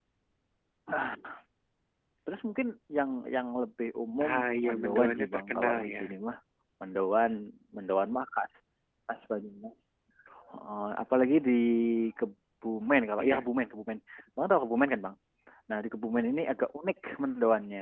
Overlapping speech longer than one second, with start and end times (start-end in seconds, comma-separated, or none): 4.7-5.9